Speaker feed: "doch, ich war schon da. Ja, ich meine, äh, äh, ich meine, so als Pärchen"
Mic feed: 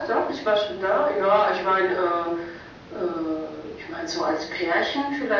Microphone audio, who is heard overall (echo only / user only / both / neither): echo only